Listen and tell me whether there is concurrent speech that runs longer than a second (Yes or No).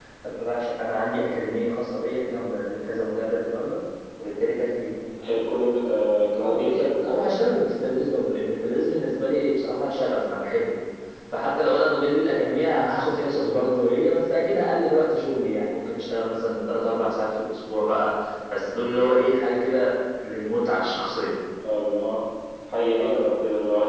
No